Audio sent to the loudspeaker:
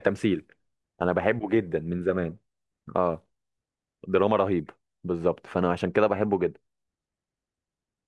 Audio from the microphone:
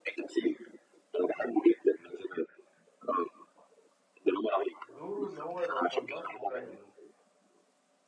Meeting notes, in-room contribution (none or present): present